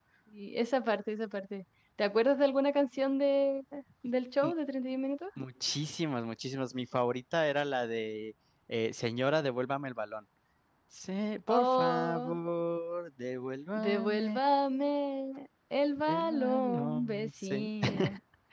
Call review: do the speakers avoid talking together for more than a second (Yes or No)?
No